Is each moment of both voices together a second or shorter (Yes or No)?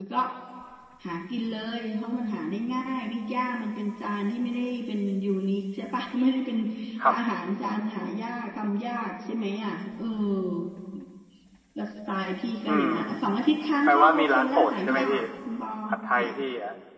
No